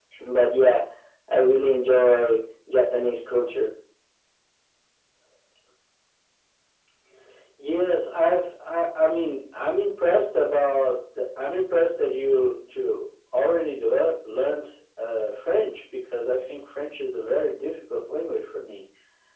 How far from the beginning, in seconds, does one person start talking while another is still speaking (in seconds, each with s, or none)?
none